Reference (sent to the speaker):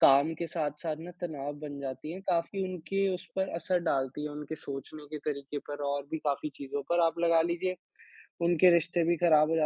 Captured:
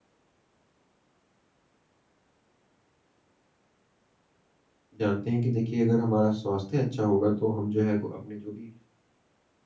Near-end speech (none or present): present